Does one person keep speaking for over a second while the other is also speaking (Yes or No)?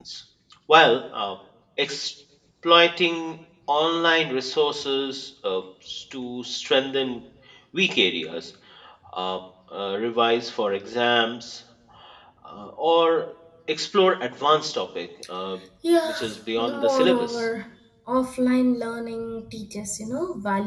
Yes